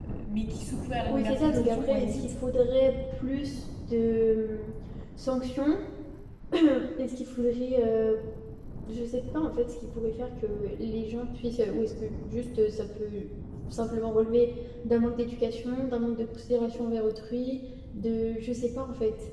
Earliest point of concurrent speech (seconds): 1 s

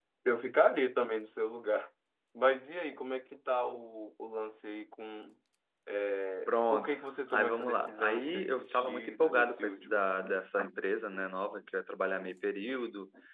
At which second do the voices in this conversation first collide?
6 s

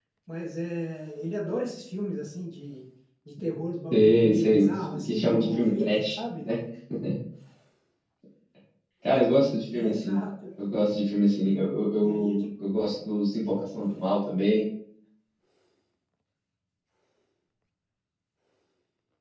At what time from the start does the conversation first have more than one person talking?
4 s

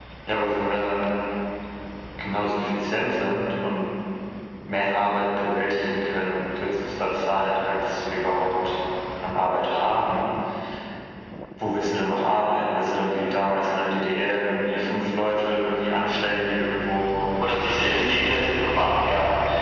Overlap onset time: 17 s

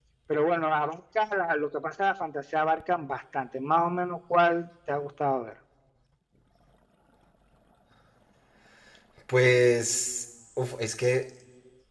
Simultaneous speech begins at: none

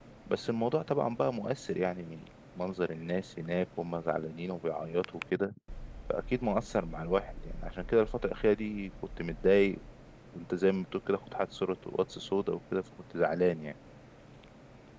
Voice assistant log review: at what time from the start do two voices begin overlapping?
none

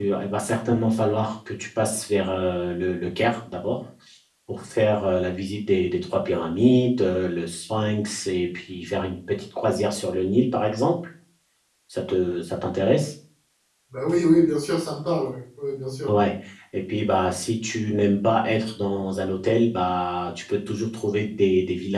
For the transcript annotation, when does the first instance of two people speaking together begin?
none

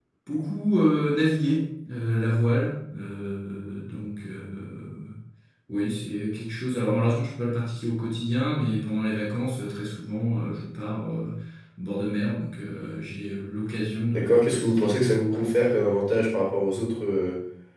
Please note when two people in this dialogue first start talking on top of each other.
14 s

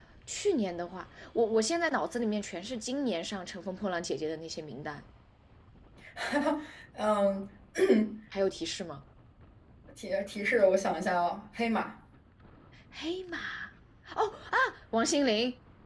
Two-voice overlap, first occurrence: none

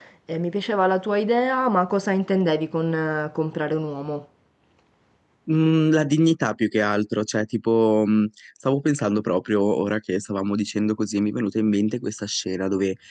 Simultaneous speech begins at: none

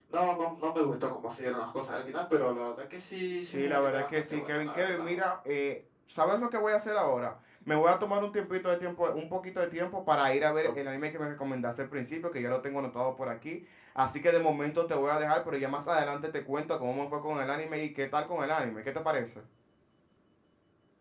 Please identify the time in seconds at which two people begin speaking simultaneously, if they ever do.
4 s

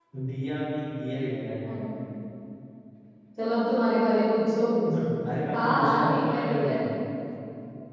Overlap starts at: 6 s

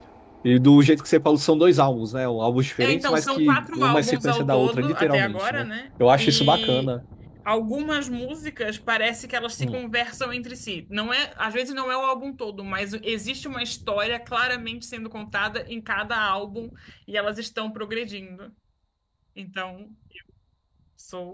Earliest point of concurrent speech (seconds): 3 s

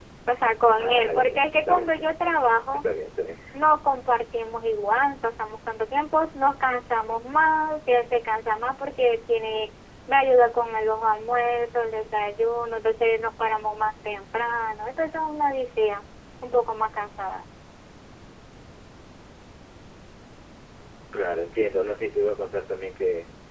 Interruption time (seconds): 1 s

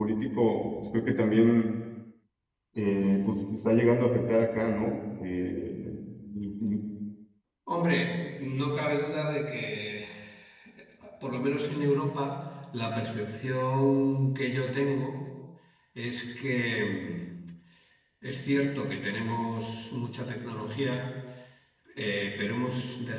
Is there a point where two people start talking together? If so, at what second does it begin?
none

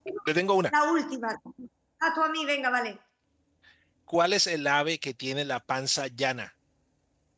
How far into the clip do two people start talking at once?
none

